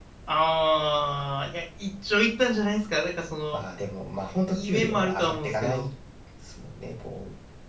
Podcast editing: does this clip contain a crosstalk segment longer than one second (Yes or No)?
Yes